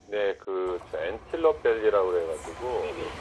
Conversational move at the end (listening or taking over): listening